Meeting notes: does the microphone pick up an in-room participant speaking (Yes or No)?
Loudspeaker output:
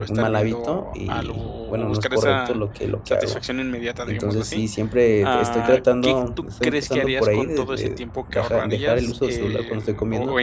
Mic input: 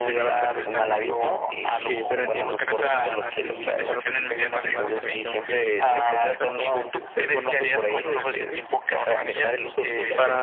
Yes